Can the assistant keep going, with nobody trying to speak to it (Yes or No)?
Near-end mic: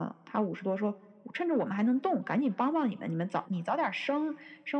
Yes